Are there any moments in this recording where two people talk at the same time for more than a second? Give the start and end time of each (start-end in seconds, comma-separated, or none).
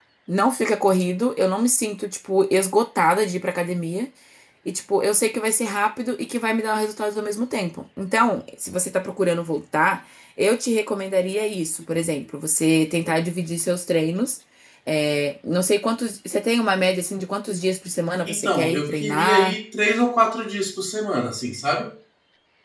18.3-19.6